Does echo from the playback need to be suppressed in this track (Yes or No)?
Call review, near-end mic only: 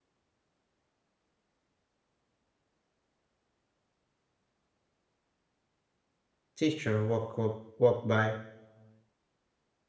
No